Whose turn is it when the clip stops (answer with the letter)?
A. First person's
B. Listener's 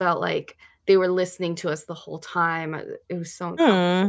B